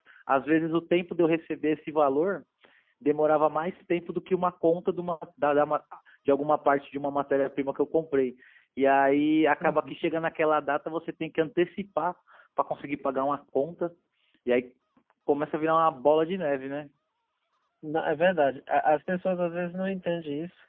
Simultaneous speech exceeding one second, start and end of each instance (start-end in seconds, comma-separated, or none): none